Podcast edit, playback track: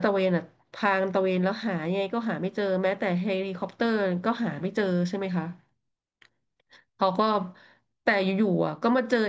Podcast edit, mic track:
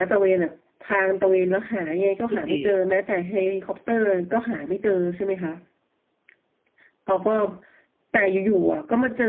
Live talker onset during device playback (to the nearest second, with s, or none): 2 s